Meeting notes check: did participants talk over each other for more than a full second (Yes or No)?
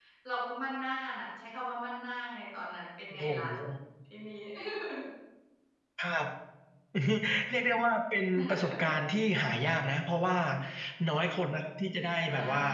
No